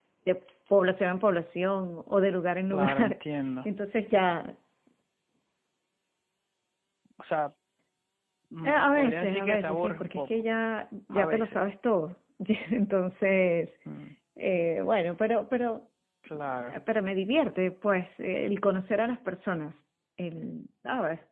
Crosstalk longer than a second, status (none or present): present